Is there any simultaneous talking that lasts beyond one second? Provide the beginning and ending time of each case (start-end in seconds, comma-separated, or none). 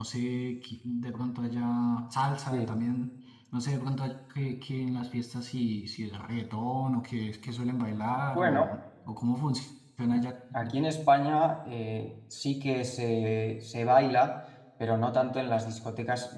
none